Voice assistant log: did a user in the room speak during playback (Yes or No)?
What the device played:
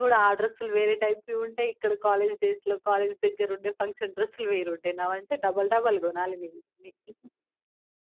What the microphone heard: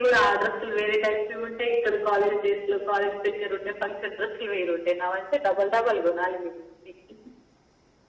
No